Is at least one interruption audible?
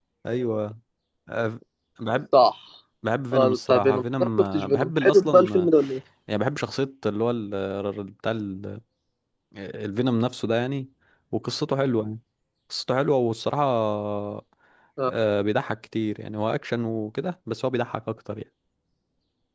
Yes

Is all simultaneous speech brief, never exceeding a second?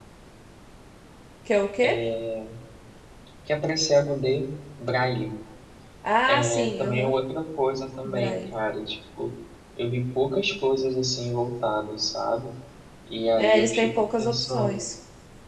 No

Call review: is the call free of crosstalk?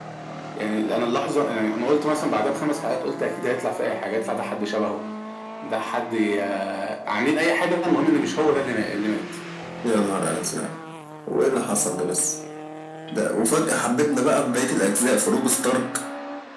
Yes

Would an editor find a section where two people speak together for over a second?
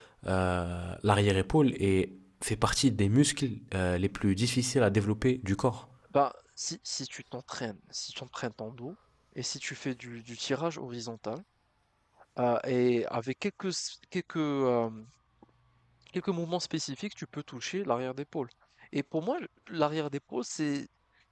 No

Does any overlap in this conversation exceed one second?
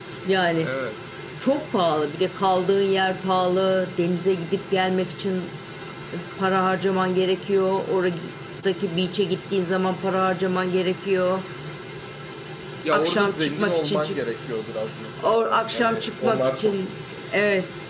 Yes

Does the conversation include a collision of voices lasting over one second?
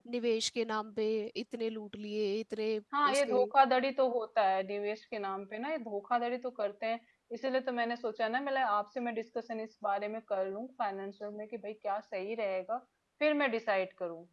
No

